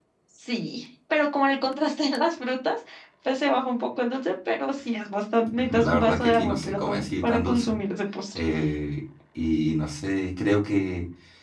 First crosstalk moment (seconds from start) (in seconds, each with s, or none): 5.5 s